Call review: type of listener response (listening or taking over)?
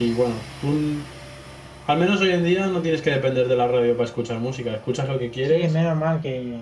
taking over